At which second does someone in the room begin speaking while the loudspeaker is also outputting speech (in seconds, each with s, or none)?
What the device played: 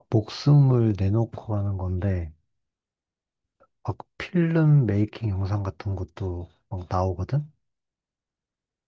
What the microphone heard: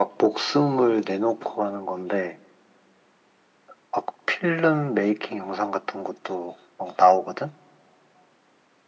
none